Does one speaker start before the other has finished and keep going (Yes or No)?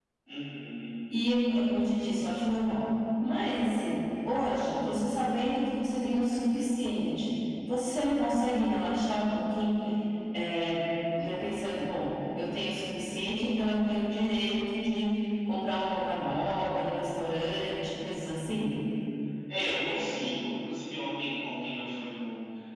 No